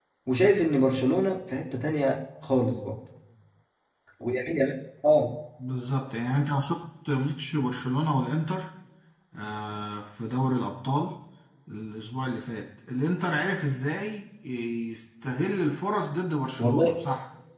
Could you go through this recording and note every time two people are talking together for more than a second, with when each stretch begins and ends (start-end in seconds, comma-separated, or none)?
none